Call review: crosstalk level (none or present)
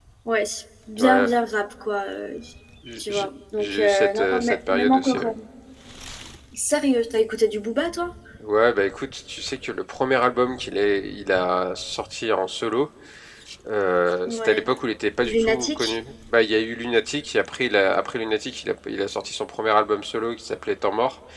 present